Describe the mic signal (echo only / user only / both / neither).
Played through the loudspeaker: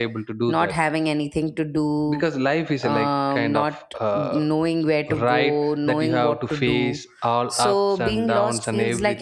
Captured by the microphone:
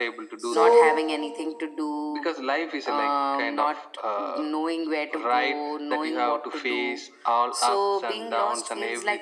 both